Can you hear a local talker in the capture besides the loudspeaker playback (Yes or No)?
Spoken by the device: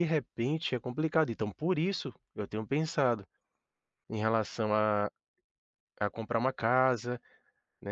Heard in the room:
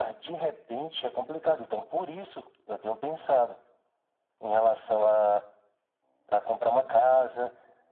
Yes